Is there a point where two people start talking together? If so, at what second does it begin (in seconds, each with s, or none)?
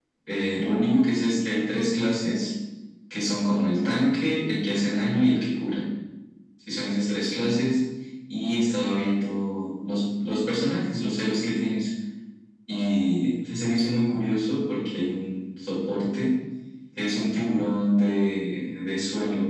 none